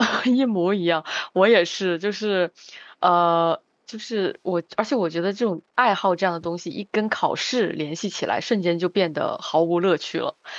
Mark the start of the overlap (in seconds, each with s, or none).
none